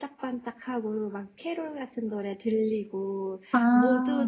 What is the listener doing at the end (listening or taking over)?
listening